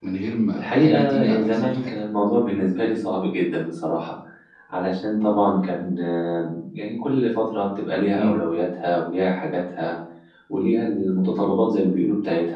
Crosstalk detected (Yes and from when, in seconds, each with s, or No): Yes, from 0.5 s